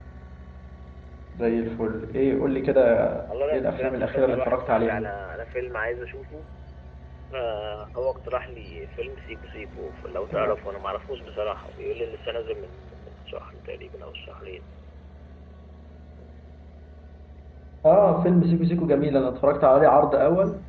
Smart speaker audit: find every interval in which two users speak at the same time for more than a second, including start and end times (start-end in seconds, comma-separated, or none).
3.5-5.1